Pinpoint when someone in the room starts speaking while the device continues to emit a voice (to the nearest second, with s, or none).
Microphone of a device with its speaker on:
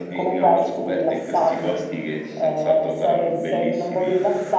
none